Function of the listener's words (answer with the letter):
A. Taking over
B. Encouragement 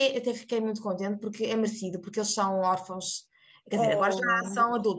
B